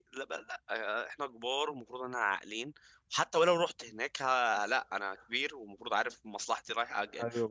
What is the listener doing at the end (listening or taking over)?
taking over